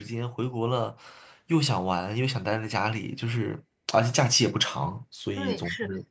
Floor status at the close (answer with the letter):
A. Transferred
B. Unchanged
A